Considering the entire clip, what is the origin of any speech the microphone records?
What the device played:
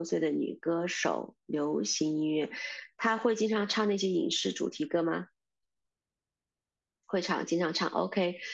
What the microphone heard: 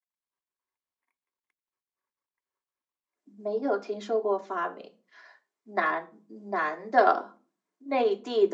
user only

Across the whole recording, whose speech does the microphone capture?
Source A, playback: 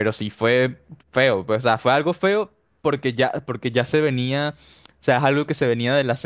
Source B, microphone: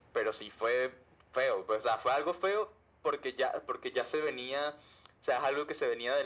echo only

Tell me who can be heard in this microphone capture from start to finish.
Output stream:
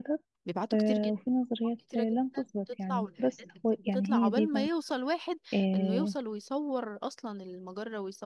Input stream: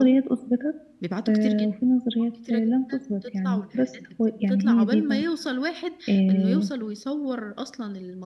echo only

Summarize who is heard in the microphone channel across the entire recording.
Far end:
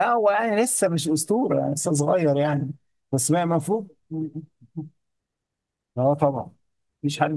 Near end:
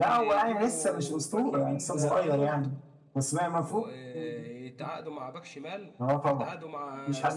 both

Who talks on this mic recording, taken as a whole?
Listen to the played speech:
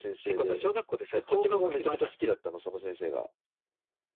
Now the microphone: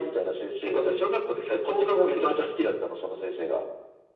echo only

